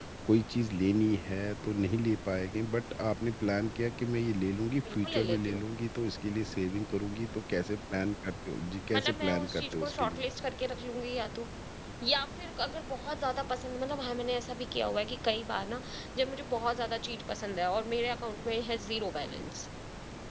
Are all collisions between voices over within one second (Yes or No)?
No